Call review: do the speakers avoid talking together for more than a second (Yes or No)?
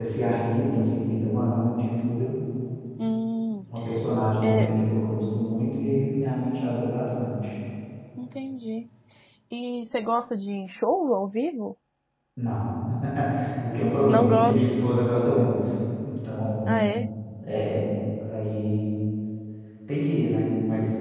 Yes